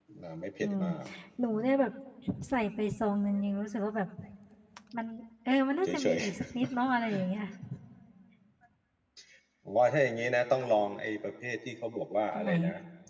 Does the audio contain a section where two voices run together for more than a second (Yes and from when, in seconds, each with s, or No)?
No